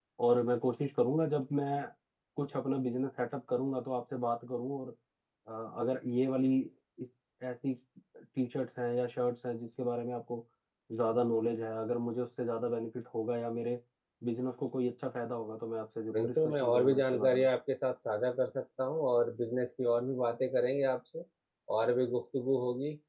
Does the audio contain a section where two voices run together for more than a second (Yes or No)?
Yes